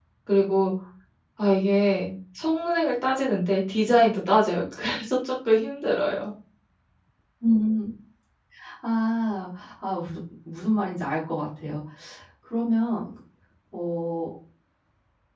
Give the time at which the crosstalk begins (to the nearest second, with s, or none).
none